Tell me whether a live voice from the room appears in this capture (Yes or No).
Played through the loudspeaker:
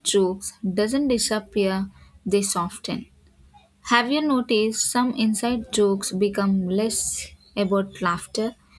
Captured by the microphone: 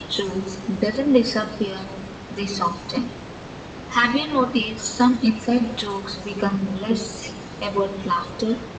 No